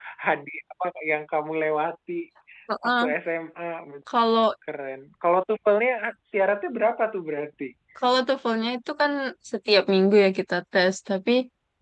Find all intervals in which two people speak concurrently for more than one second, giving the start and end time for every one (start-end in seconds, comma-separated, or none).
none